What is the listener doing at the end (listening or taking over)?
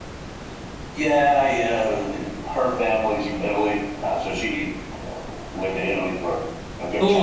taking over